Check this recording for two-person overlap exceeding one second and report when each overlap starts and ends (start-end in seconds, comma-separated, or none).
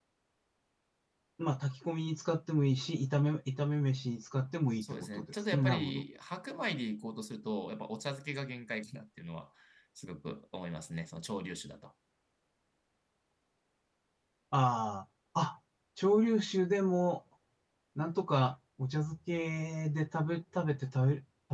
4.8-6.0